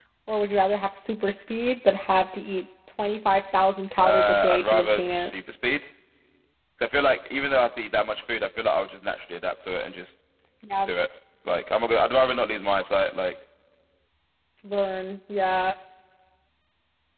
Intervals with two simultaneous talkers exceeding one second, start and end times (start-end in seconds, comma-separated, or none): 4.0-5.3